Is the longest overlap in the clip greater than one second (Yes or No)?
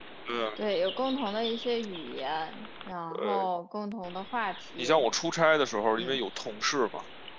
No